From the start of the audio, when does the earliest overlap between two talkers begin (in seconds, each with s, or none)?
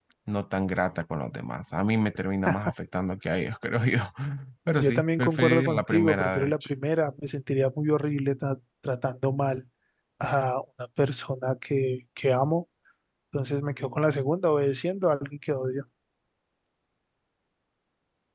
4.8 s